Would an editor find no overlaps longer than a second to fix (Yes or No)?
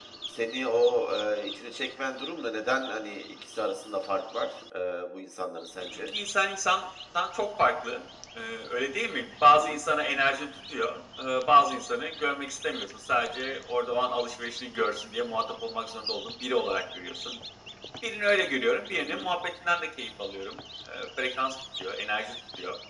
Yes